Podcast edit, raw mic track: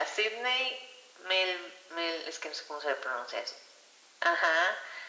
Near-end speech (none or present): none